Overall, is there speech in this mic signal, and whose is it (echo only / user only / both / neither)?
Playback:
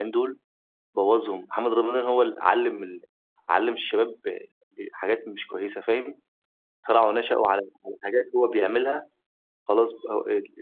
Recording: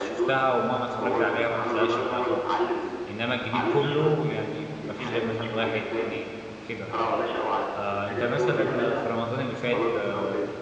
both